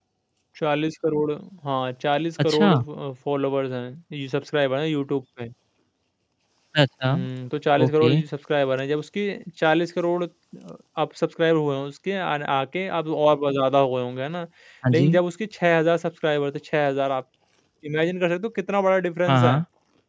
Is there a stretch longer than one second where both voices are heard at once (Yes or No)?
No